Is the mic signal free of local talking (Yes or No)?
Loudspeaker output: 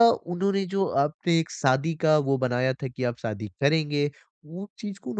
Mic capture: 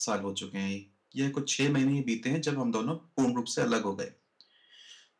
No